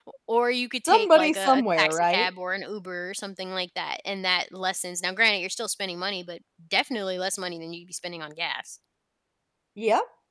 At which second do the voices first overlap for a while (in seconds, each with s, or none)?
0.8 s